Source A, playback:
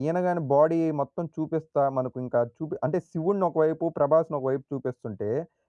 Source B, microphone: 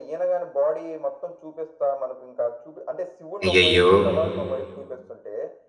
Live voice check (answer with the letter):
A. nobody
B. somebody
B